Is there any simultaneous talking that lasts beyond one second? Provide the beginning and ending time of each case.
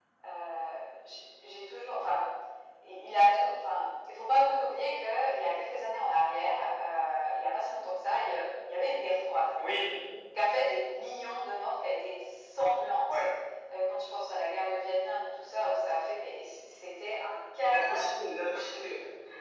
17.6-18.9

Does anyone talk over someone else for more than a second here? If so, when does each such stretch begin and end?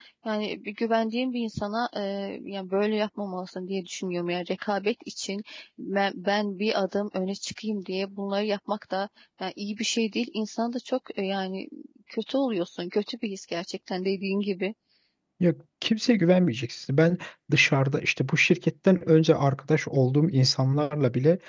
none

